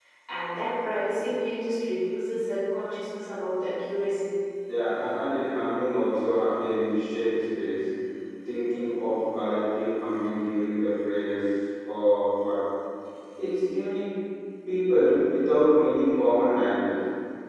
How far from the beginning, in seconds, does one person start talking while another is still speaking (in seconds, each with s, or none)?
none